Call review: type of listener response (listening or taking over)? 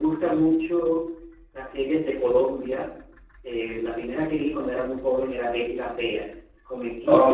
taking over